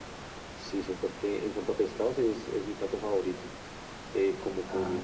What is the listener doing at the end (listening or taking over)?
listening